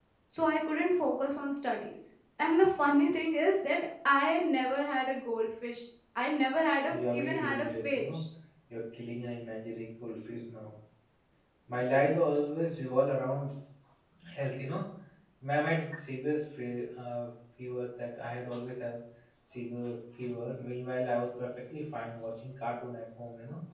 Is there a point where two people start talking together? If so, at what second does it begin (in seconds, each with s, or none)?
6.9 s